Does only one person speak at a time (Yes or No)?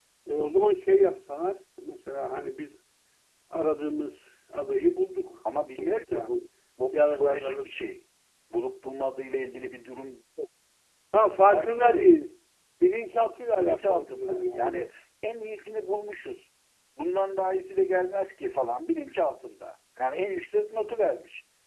No